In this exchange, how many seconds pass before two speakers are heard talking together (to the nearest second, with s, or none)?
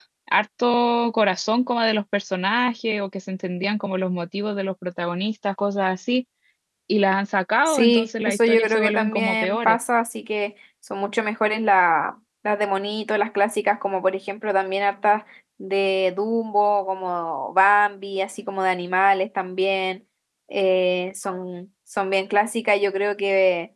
8 s